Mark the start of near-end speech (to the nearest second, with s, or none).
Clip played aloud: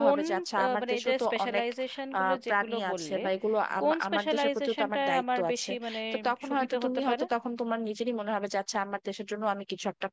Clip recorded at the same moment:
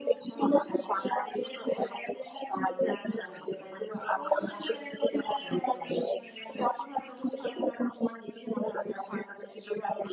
none